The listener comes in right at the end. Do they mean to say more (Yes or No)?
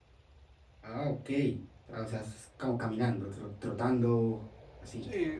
Yes